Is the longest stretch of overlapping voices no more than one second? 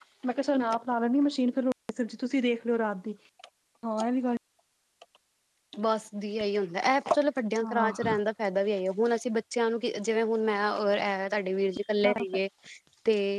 Yes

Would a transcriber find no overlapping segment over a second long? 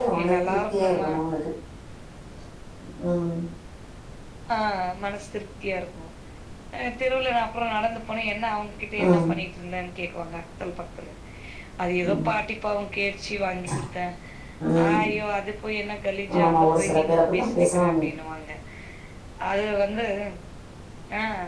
No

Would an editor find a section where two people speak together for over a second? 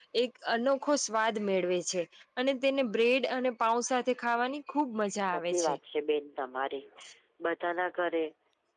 No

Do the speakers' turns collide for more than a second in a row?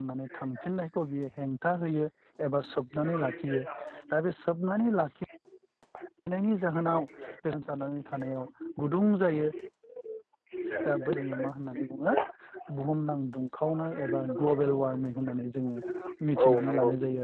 Yes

